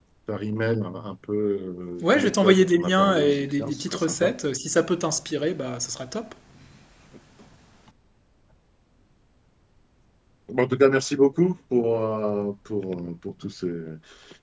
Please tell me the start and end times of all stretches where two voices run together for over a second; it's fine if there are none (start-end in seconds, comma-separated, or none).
2.0-4.3